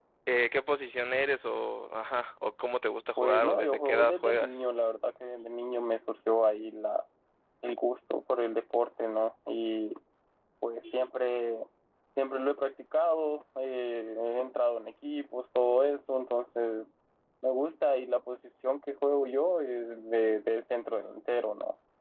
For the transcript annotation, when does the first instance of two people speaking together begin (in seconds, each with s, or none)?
3.2 s